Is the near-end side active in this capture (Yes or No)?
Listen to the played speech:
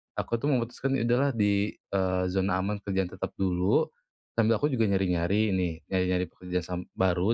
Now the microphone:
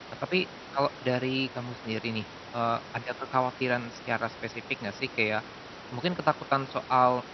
Yes